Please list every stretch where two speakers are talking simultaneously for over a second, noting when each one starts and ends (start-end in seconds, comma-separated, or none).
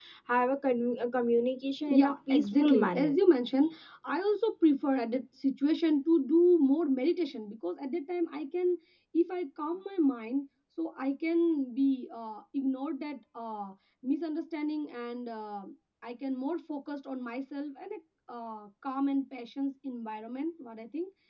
1.9-3.2